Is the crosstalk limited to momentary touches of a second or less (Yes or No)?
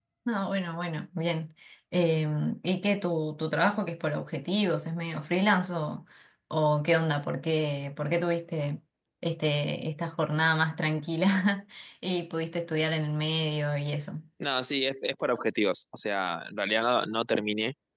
Yes